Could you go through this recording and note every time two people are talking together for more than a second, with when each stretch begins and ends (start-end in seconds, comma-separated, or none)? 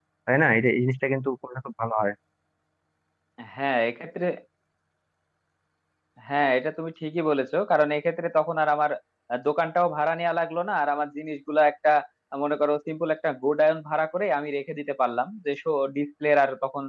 none